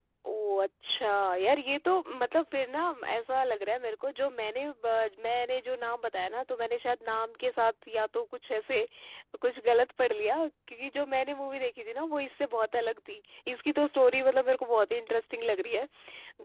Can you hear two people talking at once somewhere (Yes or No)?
No